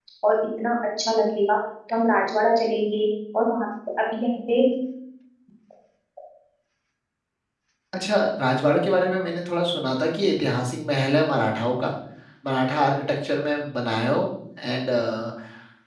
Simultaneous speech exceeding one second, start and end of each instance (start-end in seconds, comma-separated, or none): none